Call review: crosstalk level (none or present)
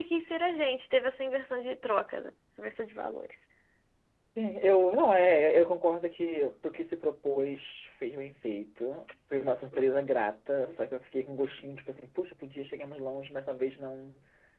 none